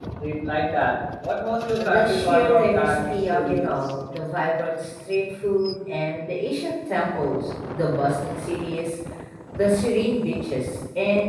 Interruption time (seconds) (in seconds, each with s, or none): 1.8 s